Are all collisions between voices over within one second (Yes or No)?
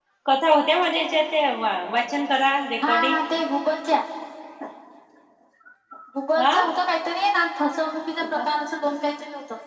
Yes